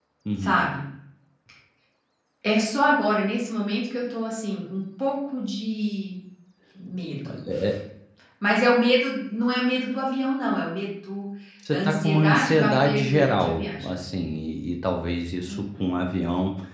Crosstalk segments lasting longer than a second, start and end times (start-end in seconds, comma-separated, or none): 11.7-13.9